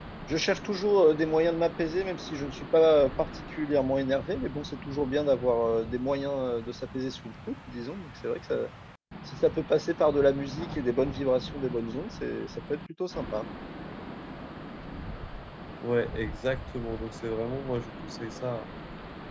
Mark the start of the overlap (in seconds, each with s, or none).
none